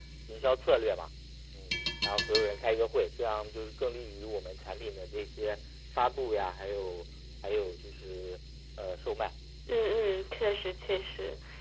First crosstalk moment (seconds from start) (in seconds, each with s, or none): none